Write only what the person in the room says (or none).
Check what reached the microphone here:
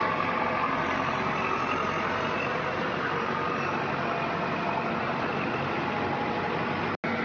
none